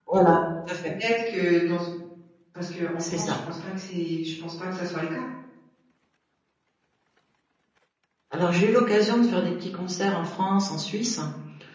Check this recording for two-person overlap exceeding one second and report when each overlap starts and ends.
none

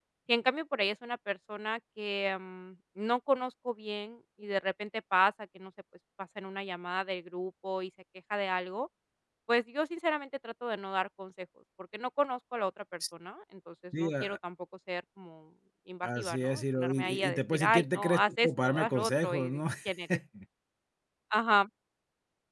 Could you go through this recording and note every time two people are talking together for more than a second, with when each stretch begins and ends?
16.0-19.6

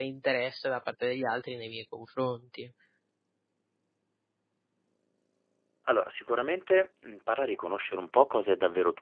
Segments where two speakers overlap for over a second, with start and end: none

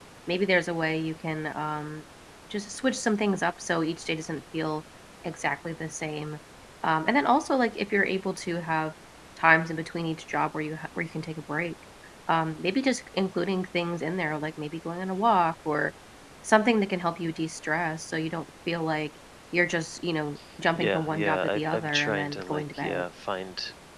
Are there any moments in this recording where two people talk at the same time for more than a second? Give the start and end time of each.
20.8-23.0

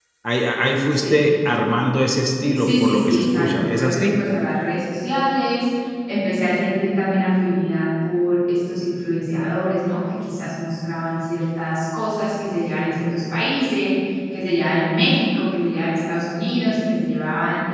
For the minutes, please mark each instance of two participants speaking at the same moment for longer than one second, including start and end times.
2.5-4.1

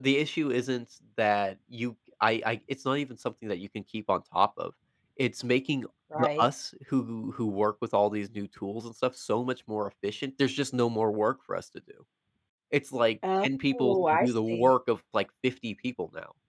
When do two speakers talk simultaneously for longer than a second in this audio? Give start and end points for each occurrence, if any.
13.4-14.8

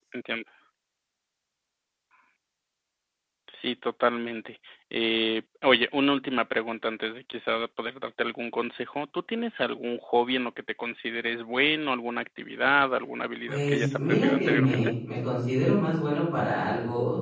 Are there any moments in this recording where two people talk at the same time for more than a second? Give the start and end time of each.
13.5-14.9

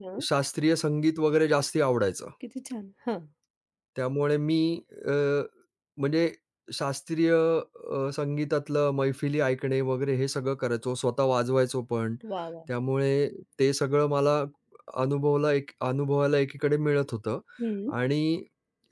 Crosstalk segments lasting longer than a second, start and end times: none

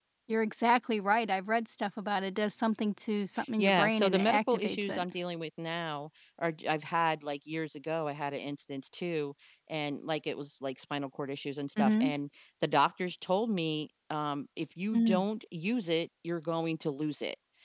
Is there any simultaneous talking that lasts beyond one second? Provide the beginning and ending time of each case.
3.6-5.0

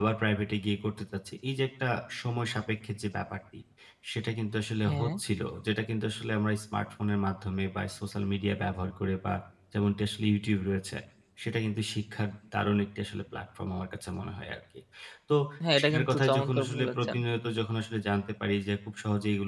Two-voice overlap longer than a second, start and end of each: 15.8-17.2

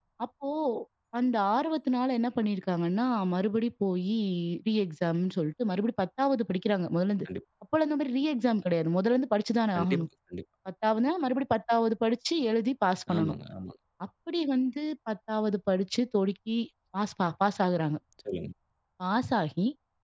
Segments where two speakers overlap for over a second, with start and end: none

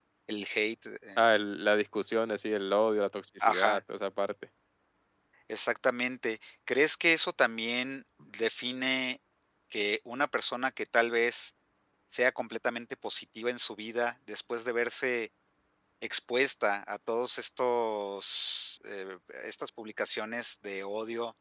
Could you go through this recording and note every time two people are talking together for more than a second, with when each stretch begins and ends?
none

